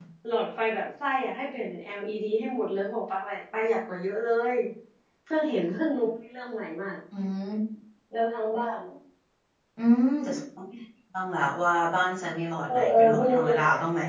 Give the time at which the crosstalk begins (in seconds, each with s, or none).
12.6 s